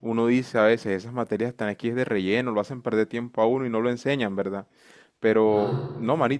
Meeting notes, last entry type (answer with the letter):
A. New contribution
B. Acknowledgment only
B